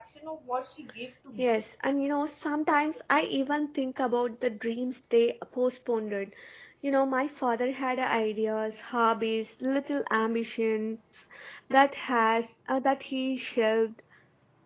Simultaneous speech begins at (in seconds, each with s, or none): none